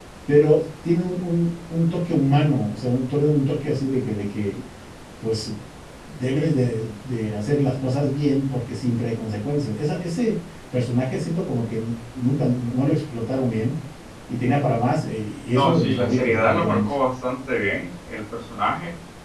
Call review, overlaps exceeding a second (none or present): present